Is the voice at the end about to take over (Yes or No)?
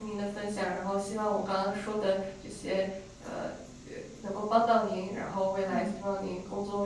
No